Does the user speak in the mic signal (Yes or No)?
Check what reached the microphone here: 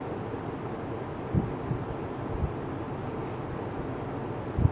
No